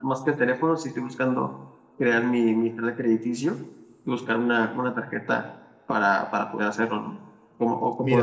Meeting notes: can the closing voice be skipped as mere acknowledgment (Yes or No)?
No